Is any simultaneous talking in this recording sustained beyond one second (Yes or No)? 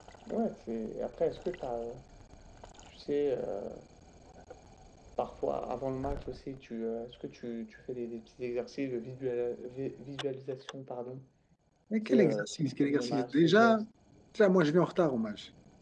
Yes